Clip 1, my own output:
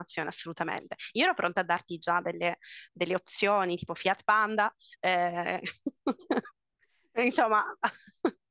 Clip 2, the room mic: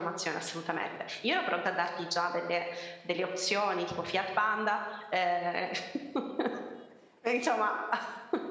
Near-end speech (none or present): none